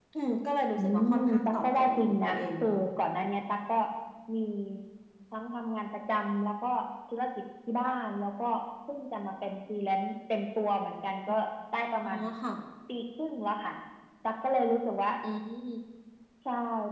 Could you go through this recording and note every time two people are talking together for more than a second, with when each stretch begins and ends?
0.8-2.8

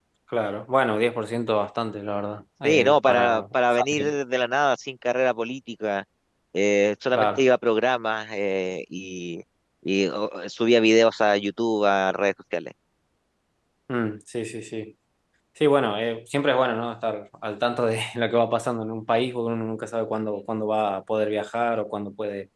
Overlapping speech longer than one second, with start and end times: 2.6-4.1

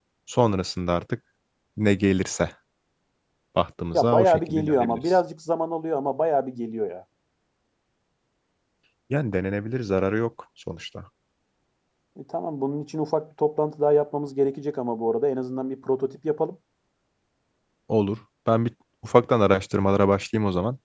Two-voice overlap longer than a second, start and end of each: 3.9-5.2

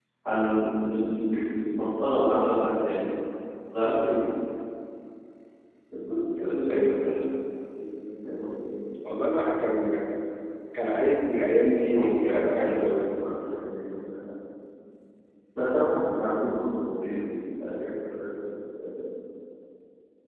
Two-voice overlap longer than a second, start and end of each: 12.0-13.2

